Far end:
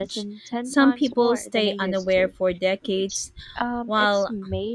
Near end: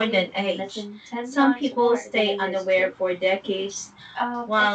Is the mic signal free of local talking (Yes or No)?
Yes